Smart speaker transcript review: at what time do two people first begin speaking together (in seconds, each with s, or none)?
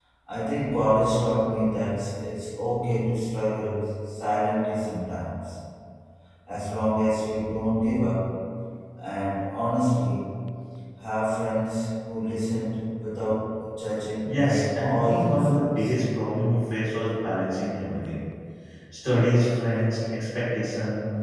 14.2 s